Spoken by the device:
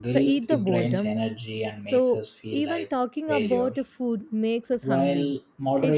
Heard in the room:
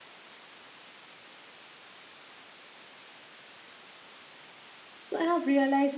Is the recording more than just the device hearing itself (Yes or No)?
Yes